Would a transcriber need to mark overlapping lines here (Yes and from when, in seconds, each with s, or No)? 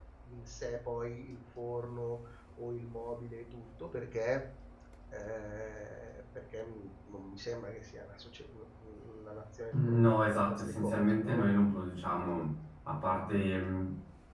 Yes, from 9.7 s